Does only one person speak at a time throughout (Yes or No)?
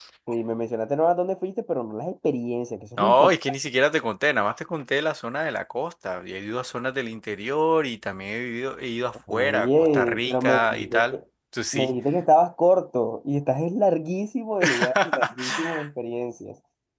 No